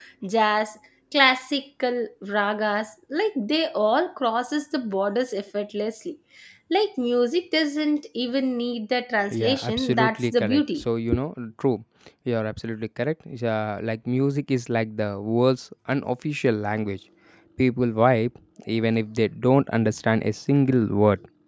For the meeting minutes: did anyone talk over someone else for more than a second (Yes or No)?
Yes